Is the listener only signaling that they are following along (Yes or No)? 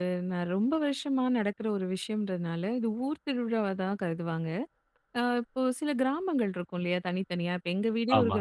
Yes